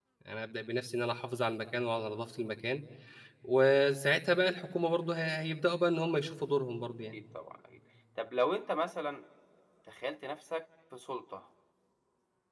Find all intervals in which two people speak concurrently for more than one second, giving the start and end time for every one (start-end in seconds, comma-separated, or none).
none